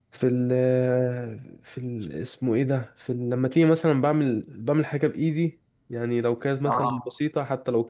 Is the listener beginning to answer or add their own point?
No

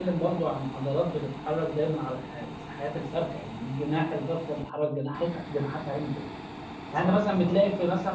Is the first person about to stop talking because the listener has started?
No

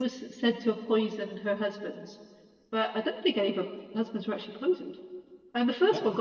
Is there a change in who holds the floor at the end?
No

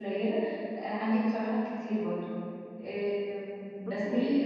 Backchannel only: Yes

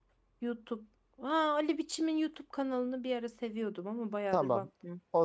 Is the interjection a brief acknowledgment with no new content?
No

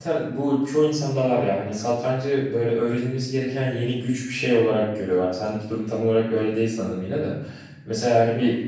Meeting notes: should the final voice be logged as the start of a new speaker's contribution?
No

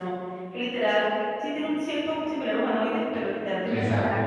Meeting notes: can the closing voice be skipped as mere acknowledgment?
Yes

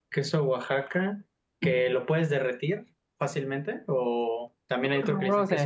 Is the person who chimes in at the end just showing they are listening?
Yes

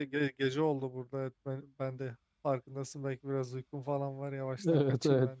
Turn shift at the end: Yes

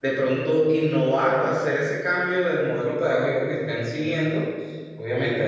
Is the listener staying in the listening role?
Yes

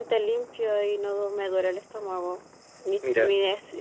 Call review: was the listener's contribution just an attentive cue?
Yes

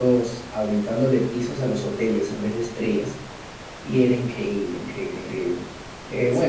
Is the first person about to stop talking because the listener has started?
Yes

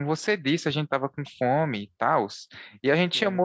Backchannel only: No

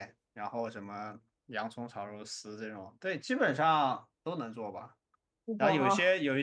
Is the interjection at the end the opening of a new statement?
No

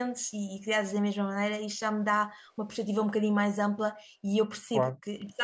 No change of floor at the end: Yes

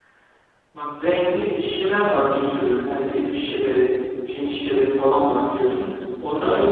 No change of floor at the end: Yes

